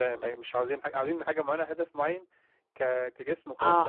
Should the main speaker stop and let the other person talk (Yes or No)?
Yes